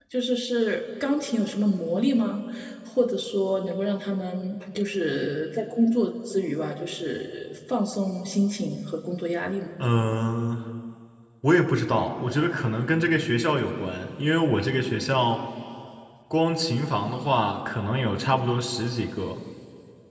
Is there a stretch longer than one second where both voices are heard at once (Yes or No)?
No